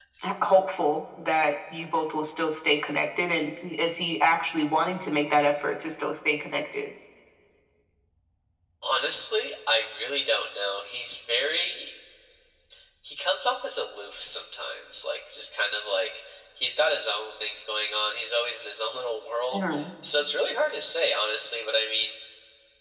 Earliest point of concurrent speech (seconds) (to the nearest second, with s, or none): none